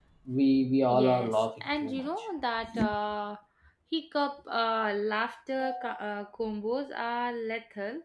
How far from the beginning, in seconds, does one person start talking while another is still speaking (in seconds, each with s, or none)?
0.8 s